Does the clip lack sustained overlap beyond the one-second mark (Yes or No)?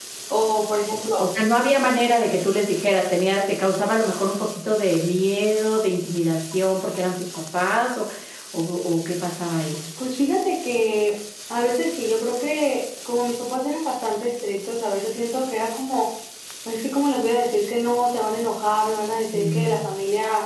Yes